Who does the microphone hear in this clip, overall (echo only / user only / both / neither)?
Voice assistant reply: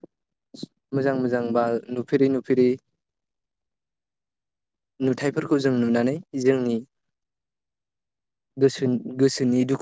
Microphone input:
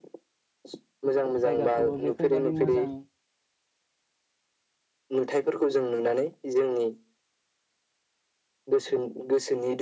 both